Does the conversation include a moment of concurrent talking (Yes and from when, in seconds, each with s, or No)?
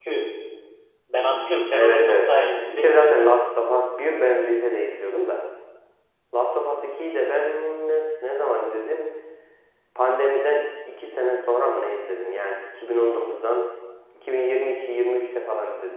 Yes, from 1.7 s